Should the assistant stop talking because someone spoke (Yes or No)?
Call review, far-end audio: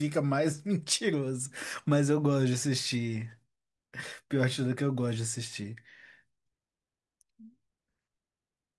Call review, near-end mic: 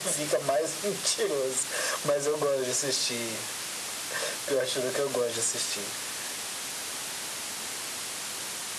No